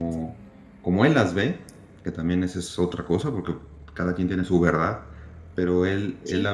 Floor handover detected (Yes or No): No